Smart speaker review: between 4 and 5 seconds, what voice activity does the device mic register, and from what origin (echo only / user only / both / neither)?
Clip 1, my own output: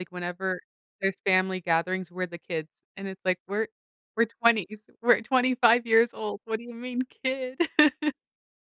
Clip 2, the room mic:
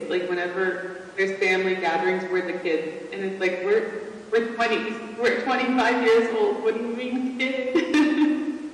echo only